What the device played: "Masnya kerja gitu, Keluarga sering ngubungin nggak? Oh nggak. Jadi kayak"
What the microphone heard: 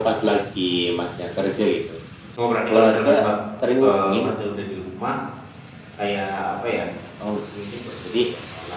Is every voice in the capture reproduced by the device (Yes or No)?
No